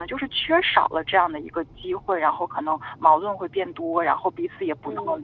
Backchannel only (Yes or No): No